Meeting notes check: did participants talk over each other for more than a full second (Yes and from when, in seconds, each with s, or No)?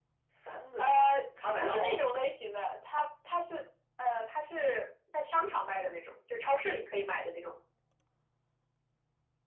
No